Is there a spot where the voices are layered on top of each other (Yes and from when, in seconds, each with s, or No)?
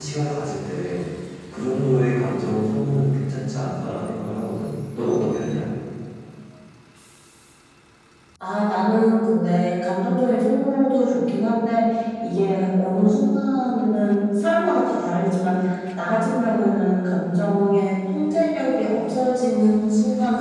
No